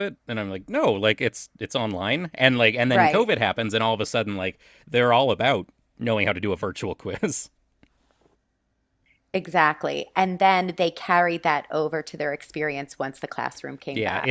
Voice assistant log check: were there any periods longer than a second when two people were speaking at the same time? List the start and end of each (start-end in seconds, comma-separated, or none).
none